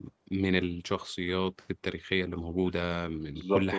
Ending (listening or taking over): taking over